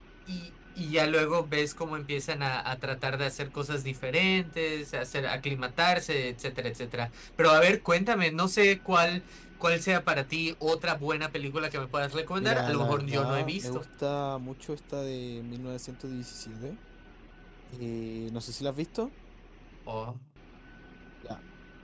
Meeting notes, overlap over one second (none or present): present